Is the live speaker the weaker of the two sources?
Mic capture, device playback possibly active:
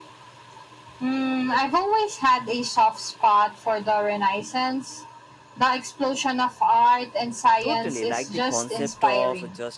Yes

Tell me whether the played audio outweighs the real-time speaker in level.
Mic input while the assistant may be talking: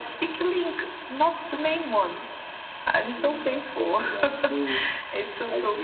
Yes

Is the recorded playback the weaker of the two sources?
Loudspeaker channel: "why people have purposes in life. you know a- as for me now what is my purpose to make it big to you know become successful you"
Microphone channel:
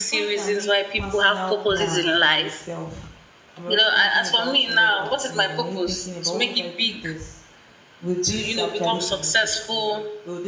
No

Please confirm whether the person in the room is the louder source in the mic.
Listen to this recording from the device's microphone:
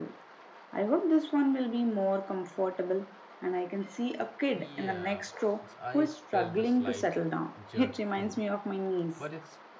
No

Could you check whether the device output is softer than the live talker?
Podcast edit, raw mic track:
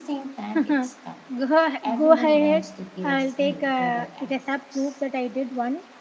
Yes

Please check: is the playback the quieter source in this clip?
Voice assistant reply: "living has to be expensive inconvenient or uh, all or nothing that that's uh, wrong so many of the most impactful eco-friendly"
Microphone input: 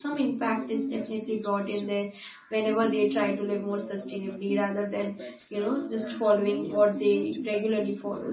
Yes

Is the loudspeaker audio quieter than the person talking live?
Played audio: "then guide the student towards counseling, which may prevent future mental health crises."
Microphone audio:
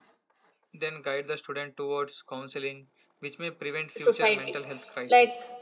Yes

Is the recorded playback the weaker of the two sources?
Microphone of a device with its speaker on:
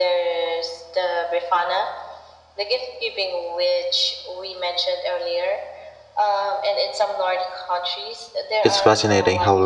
Yes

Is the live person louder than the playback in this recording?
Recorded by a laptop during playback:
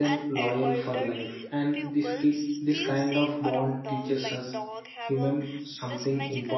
Yes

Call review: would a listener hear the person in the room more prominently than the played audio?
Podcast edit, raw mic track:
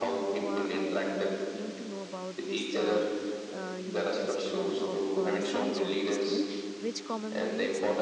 No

